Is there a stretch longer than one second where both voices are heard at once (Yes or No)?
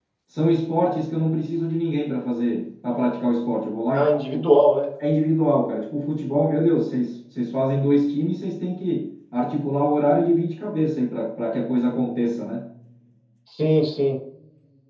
No